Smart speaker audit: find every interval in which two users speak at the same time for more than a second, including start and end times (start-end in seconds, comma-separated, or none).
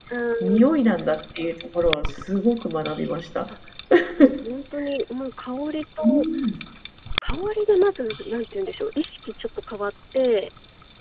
none